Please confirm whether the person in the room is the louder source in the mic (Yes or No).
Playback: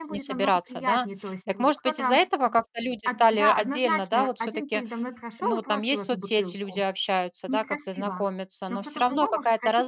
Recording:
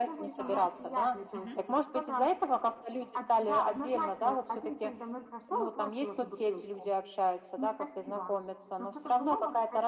No